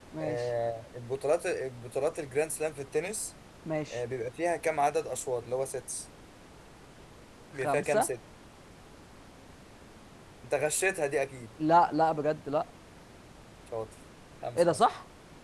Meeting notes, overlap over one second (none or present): none